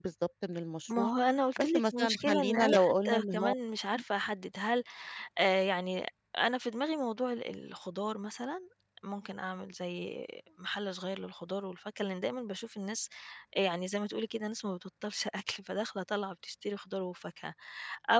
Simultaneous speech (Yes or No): Yes